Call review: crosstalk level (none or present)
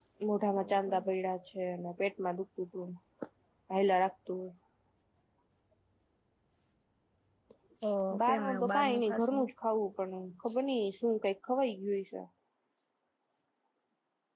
present